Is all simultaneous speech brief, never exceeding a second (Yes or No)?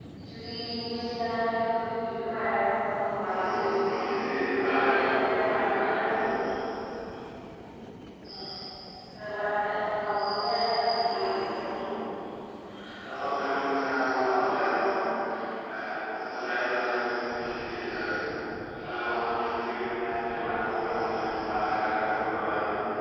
No